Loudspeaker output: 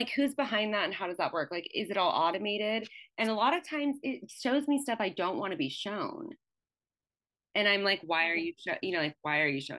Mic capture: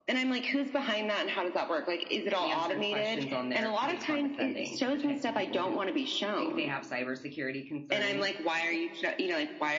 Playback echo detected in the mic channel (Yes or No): Yes